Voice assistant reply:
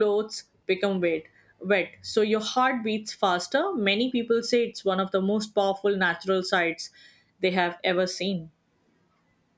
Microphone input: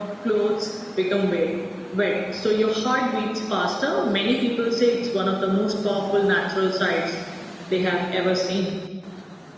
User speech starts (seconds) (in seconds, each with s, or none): none